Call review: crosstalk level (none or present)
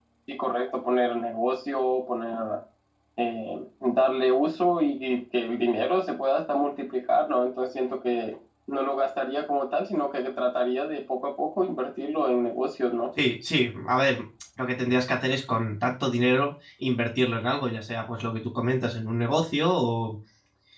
none